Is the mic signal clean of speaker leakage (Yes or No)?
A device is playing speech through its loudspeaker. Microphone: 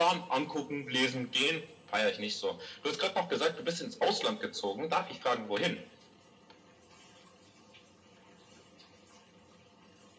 No